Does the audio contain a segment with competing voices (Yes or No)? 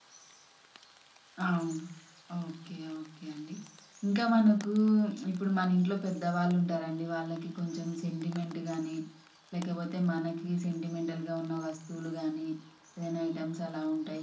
No